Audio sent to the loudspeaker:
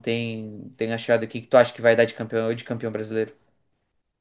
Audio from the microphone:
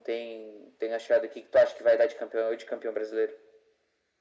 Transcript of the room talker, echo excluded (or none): none